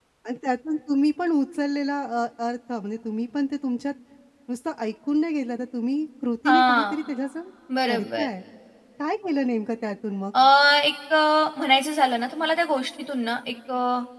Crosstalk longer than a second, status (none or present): none